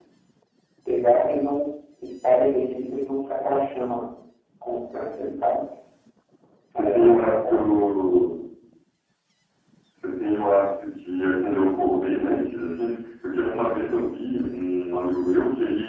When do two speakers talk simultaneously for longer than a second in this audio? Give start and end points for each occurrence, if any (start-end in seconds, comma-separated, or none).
6.7-8.0